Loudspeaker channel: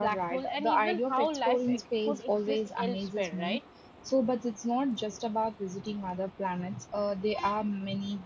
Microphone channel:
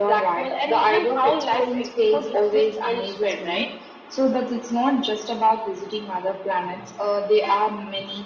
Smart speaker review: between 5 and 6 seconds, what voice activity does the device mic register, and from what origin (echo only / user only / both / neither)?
echo only